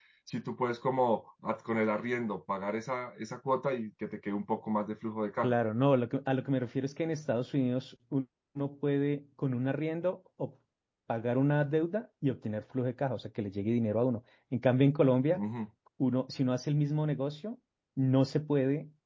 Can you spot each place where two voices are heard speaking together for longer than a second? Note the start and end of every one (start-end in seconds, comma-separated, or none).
none